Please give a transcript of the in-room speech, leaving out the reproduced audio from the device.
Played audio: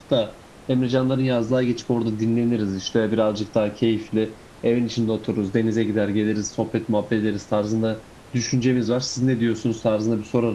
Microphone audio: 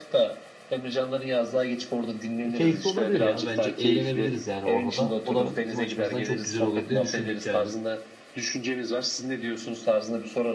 E, keyifli olabilir ya. Bence eğlenebiliriz yani orada da. O da bizim açımızdan çok güzel olur diye düşündük yani.

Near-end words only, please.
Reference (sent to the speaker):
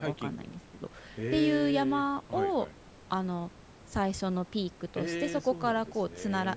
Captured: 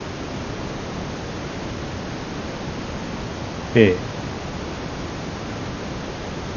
ええ。

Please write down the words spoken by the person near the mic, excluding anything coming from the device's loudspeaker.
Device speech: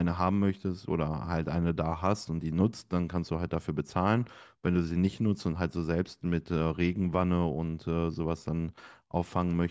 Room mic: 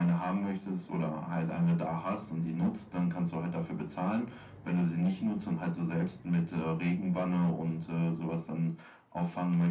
none

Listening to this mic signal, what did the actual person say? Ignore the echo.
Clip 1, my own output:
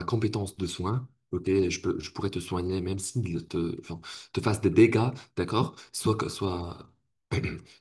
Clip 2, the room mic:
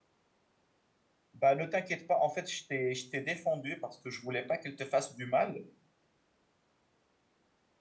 Bah, ne t'inquiète pas, en fait, je t'ai, je t'ai défendu parce que je voulais pas qu'elle te fasse du mal.

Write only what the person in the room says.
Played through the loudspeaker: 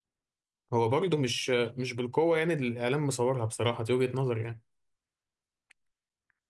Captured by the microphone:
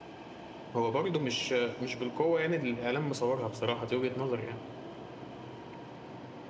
none

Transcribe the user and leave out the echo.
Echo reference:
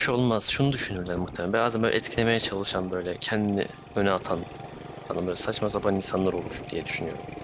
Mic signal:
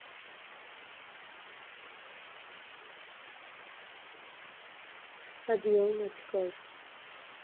Hadi yolun açık olsun.

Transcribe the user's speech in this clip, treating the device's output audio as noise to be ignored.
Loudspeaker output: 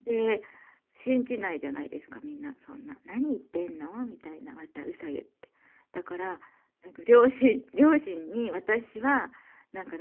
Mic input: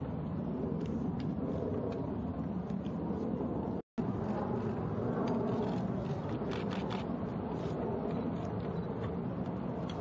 none

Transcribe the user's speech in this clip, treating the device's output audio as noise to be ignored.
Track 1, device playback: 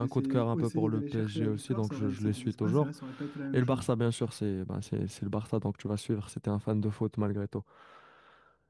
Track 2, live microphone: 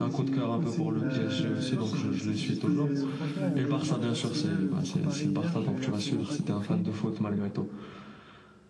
Euh, j- j'étais, euh, franchement, en voyant le match d'Arsenal euh, contre Paris hier, j'ai absolument pas compris,

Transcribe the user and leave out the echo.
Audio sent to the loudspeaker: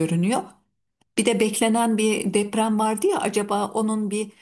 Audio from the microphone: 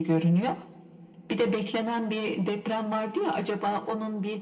none

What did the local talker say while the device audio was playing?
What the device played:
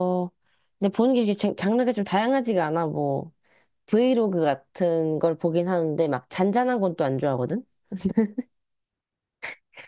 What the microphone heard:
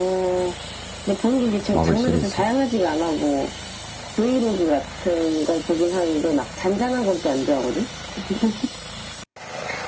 마블 시리즈.

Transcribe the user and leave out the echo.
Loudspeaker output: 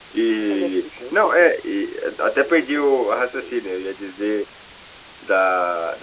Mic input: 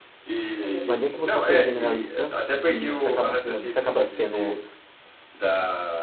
Não adianta você ser generalista e e você acaba, se- você acaba sendo

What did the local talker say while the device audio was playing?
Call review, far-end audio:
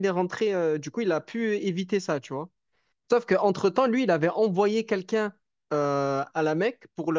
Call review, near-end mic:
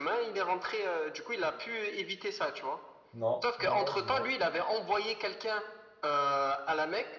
Non, non, non, dis-moi.

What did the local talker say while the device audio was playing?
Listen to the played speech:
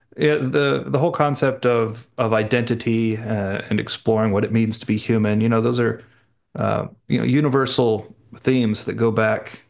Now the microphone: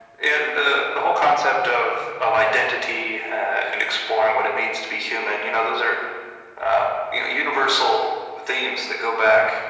none

